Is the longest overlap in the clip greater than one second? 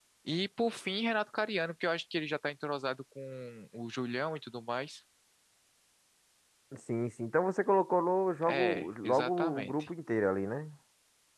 Yes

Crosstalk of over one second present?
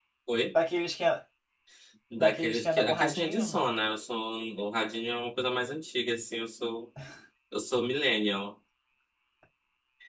Yes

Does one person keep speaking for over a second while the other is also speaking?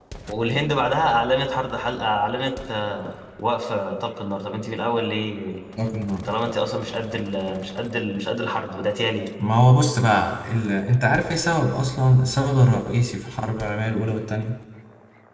No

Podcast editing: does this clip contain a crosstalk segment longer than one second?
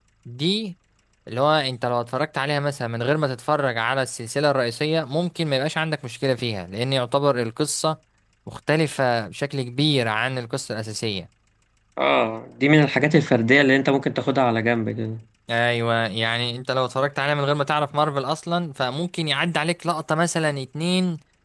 No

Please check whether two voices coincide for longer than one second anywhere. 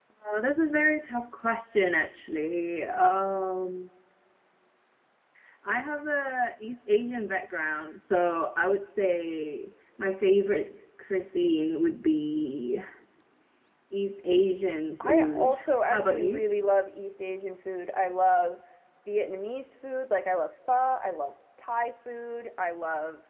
Yes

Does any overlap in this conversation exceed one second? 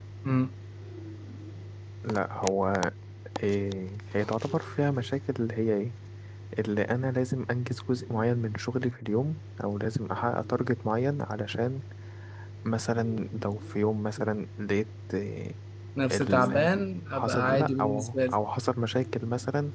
Yes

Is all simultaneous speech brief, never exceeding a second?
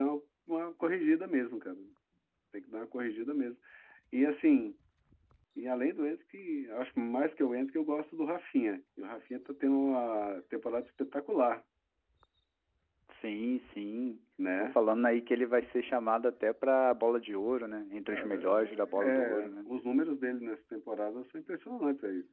No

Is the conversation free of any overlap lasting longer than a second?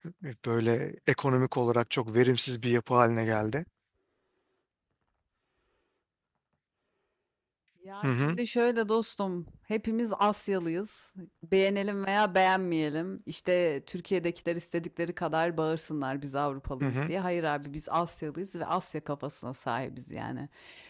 Yes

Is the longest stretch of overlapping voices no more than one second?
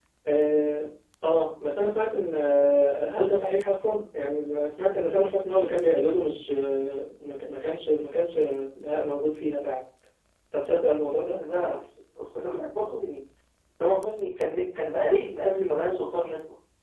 Yes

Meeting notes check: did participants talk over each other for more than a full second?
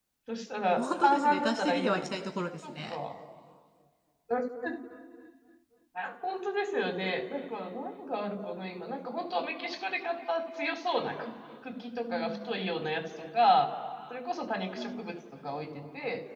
Yes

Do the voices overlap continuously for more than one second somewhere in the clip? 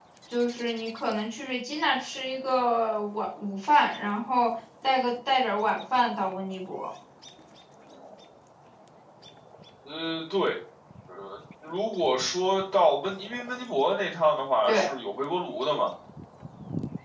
No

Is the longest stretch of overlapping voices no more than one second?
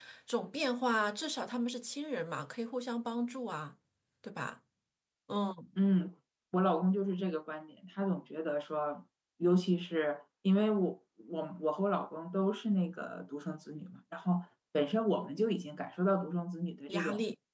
Yes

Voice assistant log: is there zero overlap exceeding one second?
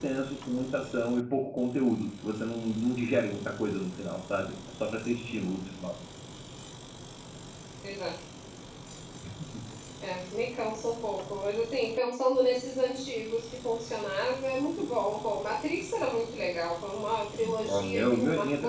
No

